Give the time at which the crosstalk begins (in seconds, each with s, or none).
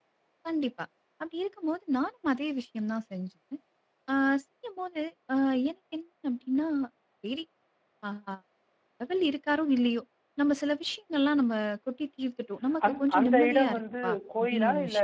12.8 s